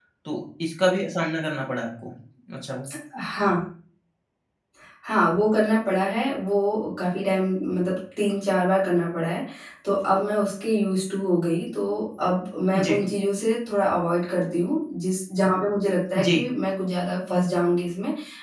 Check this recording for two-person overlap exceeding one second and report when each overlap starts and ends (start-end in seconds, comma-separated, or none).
none